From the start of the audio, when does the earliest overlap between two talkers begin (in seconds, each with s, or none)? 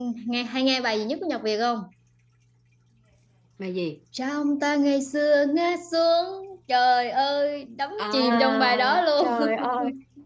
8.0 s